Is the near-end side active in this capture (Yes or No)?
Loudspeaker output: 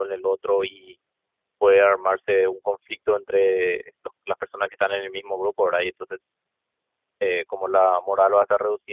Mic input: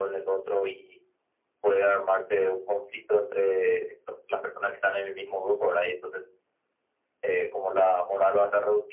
No